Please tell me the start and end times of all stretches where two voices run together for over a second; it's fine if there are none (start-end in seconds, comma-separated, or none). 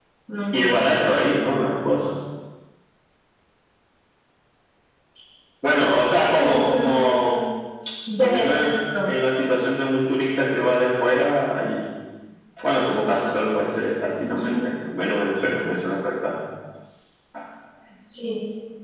5.7-7.3